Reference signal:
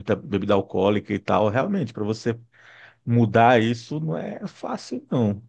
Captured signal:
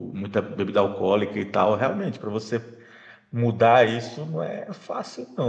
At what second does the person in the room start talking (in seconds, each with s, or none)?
none